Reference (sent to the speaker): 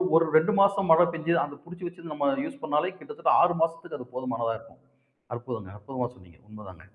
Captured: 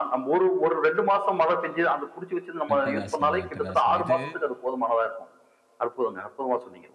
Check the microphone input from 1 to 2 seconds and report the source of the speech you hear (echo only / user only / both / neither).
echo only